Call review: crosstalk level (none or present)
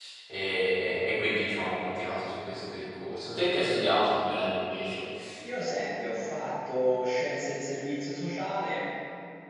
none